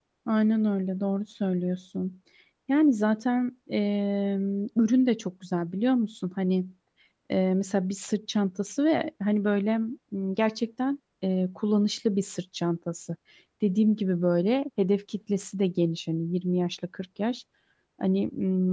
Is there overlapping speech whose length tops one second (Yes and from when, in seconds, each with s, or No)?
No